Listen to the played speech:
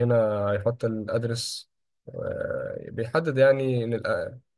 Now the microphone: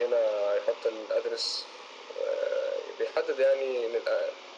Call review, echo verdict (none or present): present